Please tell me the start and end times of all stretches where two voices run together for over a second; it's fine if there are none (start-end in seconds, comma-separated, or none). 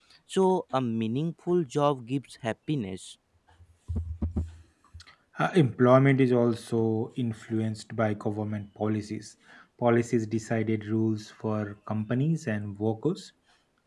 none